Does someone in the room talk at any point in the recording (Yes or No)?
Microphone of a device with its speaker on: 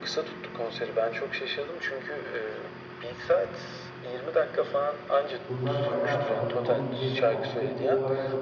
Yes